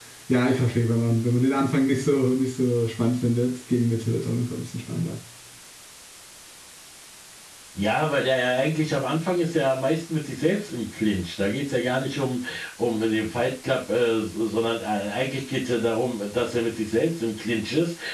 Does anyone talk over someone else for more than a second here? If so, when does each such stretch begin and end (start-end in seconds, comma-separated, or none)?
none